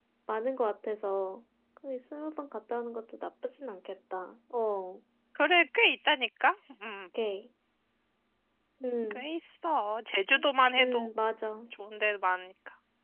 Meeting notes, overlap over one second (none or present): none